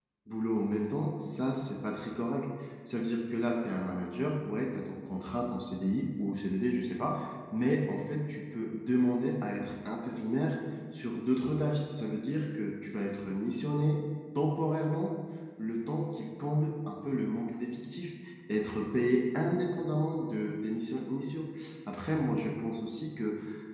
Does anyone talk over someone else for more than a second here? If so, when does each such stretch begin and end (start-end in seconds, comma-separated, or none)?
none